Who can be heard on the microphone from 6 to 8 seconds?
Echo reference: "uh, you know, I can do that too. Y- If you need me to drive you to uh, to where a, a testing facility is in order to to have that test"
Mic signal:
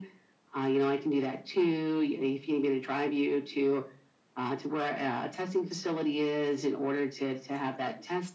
echo only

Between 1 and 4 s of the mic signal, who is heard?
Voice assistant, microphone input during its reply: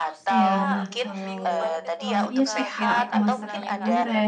both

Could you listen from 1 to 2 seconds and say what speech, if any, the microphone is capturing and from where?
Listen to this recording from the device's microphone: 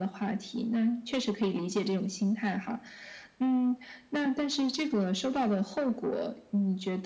echo only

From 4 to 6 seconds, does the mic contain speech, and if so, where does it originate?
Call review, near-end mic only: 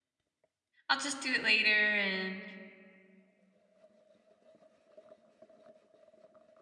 neither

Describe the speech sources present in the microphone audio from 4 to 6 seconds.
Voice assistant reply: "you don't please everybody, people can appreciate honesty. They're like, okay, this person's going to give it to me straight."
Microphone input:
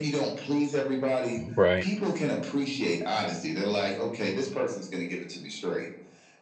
echo only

